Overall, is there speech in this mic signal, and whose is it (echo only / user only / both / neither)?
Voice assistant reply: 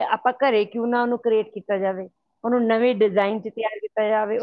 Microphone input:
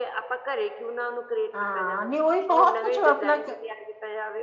both